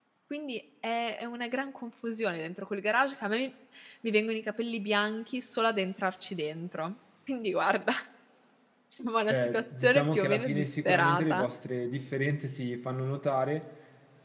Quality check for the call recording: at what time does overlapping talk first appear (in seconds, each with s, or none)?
9.3 s